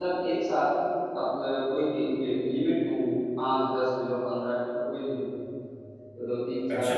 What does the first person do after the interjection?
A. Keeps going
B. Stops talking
A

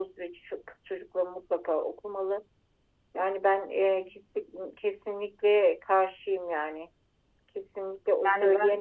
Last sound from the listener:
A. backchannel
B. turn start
A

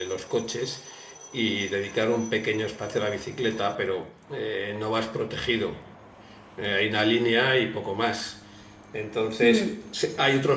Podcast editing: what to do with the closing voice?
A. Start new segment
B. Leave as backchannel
B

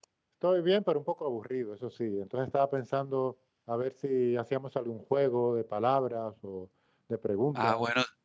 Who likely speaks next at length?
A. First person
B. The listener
B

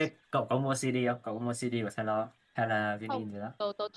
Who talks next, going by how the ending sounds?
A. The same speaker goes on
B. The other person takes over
B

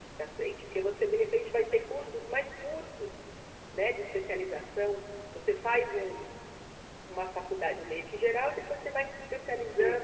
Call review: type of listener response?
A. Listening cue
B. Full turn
A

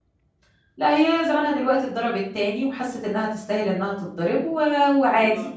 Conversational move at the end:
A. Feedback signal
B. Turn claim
A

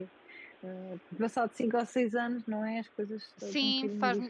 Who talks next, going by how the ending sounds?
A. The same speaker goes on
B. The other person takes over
B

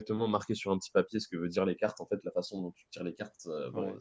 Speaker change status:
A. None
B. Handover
A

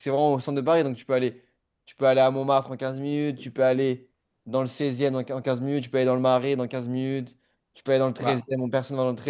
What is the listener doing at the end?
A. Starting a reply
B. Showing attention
B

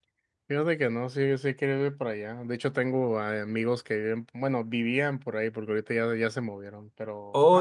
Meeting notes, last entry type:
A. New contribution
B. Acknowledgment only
A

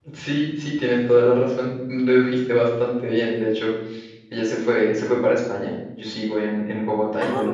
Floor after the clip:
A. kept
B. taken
A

